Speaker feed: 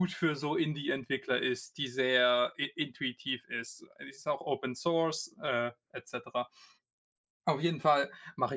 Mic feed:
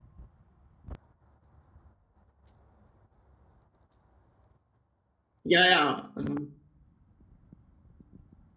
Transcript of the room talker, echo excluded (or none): Ja, ja, ähm